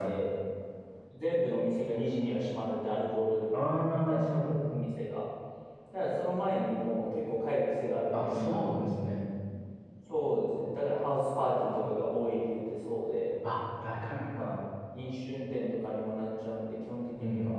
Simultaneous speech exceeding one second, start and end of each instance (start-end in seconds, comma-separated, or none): none